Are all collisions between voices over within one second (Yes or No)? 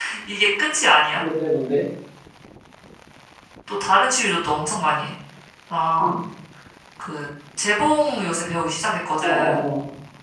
Yes